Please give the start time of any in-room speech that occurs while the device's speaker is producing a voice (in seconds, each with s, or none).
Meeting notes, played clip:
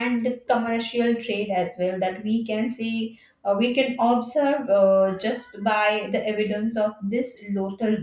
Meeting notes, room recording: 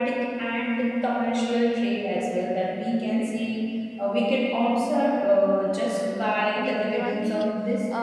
6.5 s